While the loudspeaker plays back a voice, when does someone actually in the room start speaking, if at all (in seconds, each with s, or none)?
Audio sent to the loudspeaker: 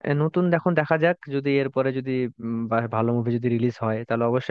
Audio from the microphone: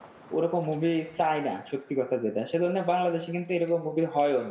0.3 s